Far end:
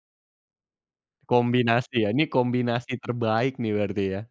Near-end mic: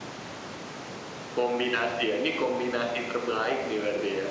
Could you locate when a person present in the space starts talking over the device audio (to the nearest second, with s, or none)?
none